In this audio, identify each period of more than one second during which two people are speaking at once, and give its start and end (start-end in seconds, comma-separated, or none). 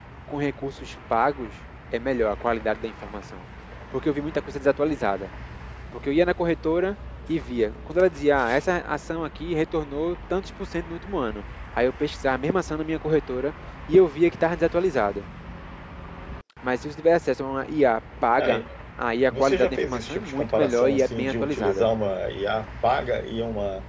19.3-21.9